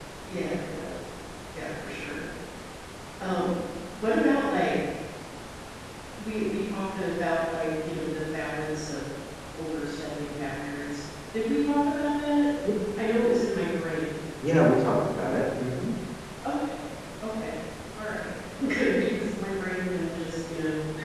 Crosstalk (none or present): none